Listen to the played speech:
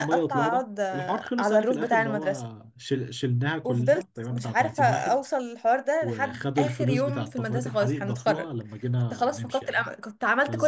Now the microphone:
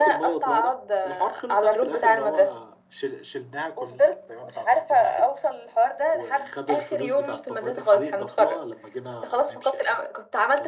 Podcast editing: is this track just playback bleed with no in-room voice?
Yes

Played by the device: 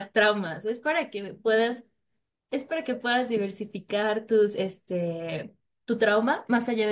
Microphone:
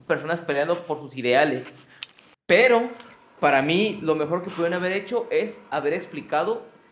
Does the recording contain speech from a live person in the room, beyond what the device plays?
Yes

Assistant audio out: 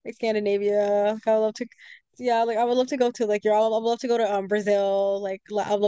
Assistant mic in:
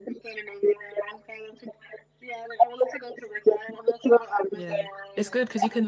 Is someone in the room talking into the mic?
Yes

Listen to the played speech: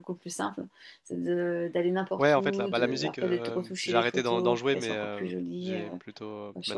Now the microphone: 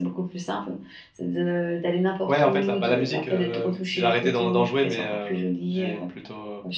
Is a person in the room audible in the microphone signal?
No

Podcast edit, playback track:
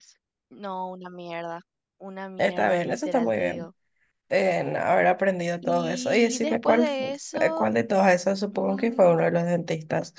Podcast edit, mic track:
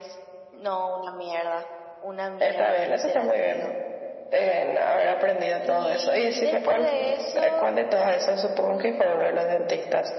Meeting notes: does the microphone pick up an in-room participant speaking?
No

